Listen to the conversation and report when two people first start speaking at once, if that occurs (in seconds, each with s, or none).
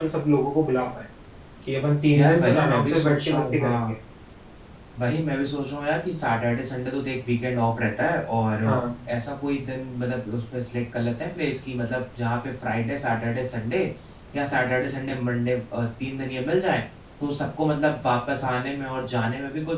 2.2 s